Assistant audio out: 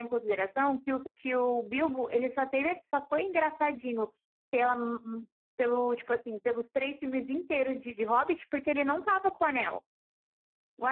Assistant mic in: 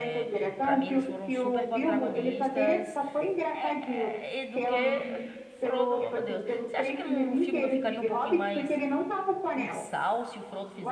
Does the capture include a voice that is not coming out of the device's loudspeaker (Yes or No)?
Yes